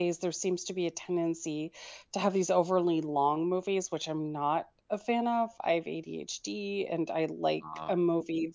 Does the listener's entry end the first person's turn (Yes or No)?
No